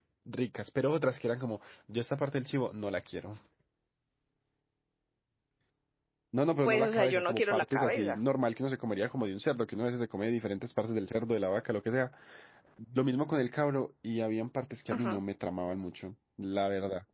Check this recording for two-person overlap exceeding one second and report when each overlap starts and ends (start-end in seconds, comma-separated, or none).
6.6-8.2